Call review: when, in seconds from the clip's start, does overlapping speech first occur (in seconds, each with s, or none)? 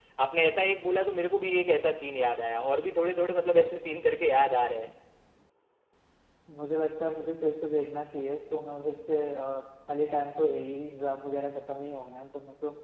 none